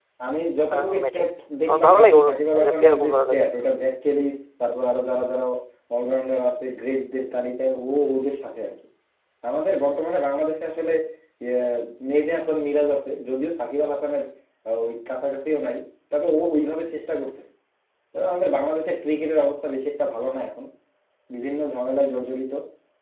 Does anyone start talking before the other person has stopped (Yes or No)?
Yes